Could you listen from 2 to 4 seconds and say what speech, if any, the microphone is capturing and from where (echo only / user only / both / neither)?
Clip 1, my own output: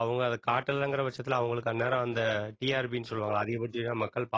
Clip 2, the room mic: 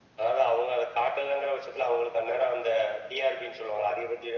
echo only